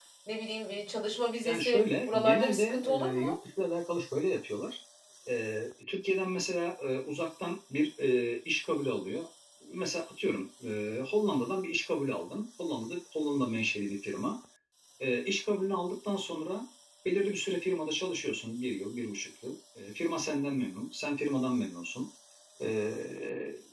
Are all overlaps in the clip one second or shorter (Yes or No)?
No